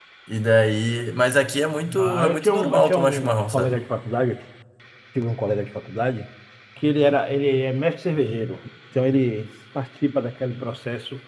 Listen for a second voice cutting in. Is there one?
Yes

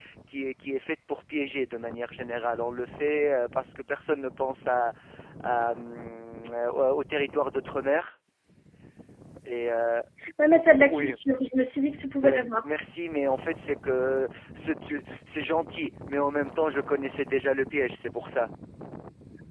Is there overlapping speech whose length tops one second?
No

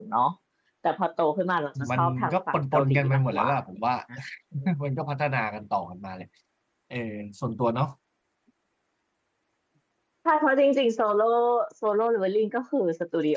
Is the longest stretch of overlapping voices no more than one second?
No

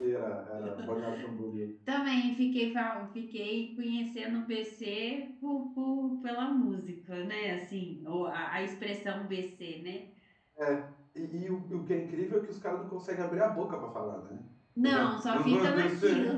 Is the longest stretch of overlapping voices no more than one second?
No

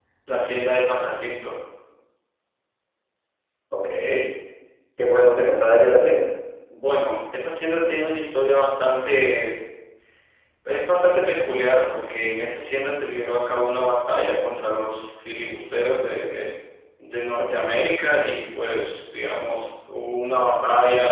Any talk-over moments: No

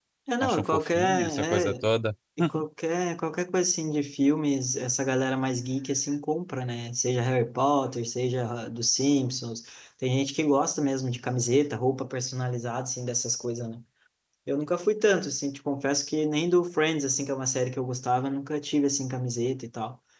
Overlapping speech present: Yes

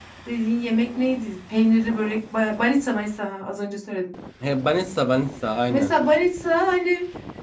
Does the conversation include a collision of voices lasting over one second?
No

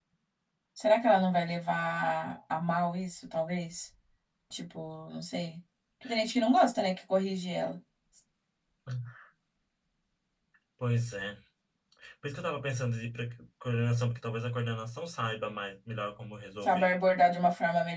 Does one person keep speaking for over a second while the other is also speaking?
No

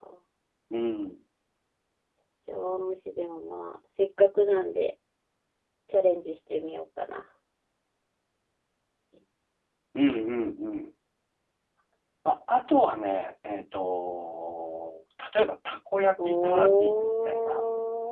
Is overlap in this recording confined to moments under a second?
No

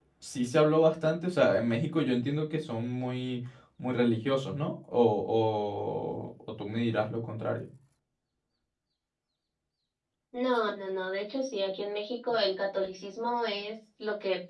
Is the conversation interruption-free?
Yes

